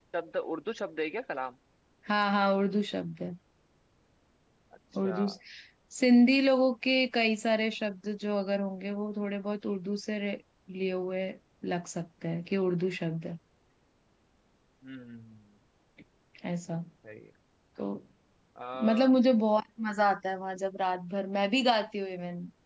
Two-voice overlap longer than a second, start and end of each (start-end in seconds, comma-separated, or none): none